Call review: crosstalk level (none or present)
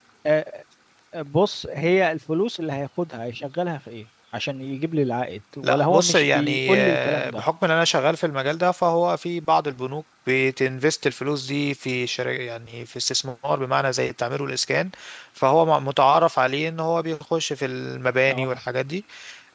present